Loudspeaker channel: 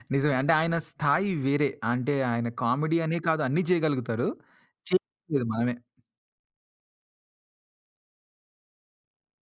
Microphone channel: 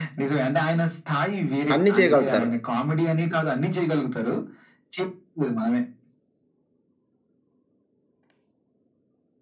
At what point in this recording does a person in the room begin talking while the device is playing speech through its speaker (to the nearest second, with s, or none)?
2 s